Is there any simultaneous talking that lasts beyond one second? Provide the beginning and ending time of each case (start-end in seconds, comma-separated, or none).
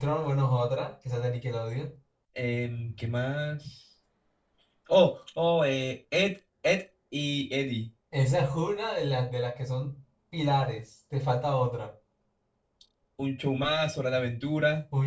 none